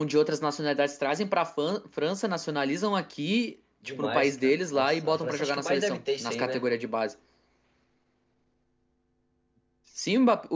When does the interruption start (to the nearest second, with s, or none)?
4 s